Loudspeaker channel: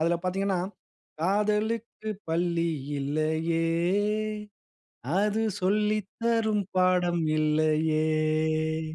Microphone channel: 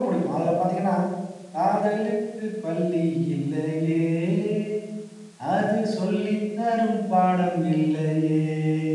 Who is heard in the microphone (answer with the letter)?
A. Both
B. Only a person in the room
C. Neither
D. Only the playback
D